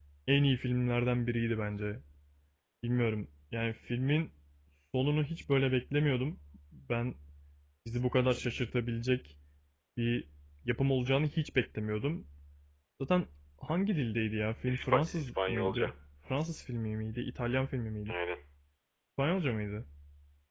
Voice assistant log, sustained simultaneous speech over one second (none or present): present